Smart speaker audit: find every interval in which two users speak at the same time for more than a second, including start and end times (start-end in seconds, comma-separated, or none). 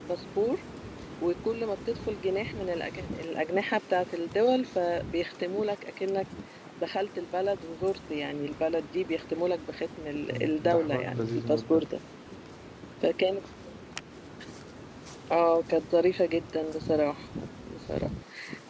10.3-11.8